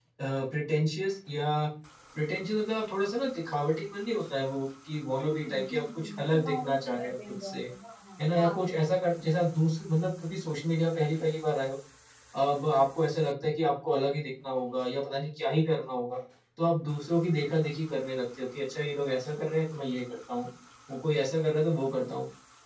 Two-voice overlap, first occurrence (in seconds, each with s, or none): 5.2 s